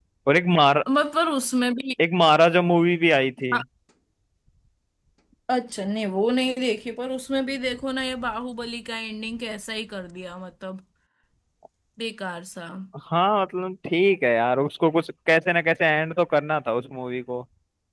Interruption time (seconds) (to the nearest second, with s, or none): none